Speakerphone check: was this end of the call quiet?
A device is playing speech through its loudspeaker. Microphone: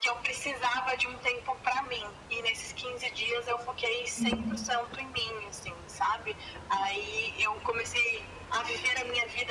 No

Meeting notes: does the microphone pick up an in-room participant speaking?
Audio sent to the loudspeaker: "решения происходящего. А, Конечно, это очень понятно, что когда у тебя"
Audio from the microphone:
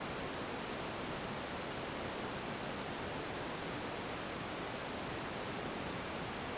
No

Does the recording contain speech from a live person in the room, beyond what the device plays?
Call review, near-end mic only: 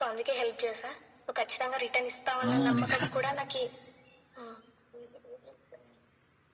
Yes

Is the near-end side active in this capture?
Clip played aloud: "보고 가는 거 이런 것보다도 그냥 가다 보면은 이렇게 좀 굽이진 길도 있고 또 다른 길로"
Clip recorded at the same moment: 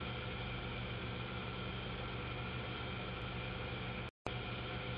No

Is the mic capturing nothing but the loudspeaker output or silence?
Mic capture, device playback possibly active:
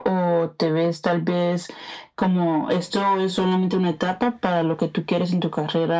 Yes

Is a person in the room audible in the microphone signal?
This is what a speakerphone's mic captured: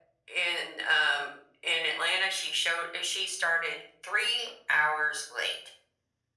No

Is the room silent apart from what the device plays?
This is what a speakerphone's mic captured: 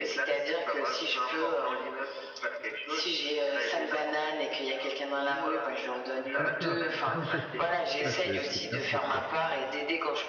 No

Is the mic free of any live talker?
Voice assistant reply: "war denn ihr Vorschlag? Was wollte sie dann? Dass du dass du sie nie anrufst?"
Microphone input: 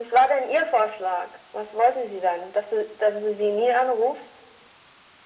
Yes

